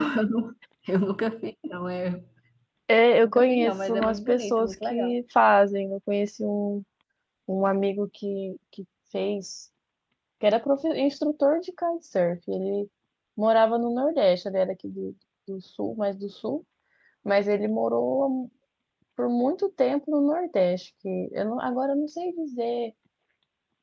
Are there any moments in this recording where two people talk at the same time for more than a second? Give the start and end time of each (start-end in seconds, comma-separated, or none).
3.2-5.1